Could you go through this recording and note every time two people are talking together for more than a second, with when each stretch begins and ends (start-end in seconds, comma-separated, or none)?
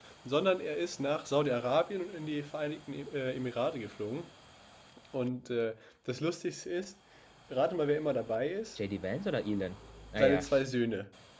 none